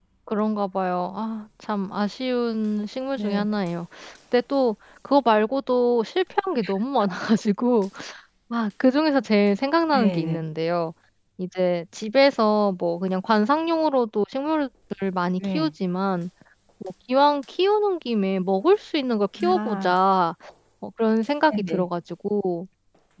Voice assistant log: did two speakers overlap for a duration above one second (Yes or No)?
No